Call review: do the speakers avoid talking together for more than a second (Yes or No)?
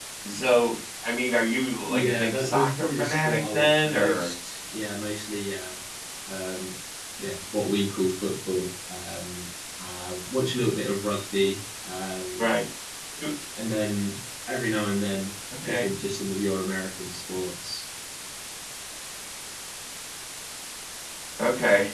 No